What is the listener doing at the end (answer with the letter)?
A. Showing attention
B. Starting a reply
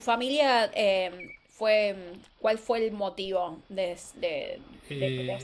B